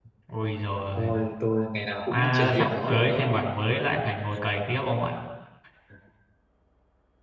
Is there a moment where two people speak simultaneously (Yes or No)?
Yes